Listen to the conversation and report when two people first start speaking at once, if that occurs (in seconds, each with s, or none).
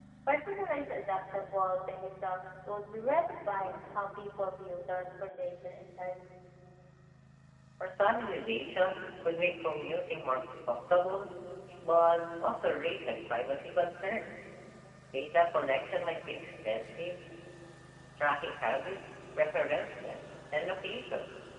none